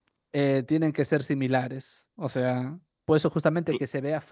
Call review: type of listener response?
listening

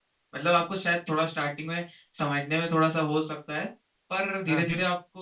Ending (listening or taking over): listening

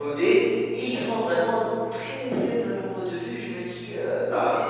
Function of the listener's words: listening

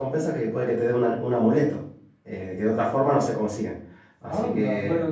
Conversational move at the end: taking over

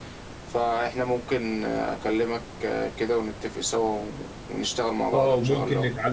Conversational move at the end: taking over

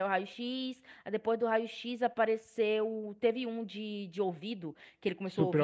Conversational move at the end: listening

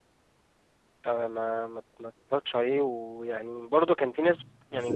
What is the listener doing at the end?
listening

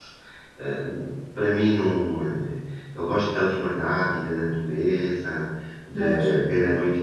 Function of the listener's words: listening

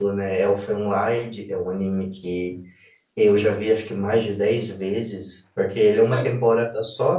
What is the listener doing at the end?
listening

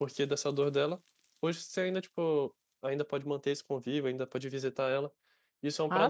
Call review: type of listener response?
listening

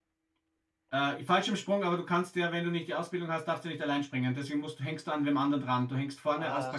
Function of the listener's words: taking over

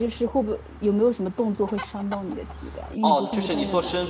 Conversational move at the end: taking over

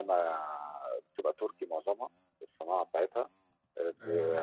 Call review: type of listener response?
listening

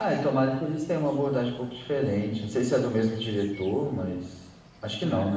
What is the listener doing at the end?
taking over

